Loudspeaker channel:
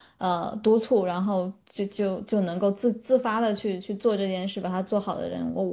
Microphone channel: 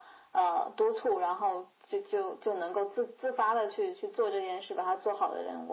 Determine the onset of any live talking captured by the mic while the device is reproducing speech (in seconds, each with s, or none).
none